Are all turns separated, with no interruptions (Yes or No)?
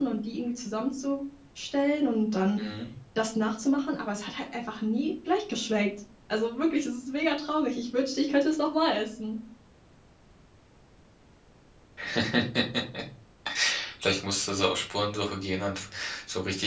Yes